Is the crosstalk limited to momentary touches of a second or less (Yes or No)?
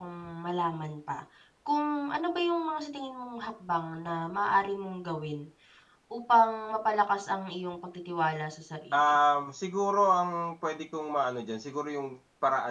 Yes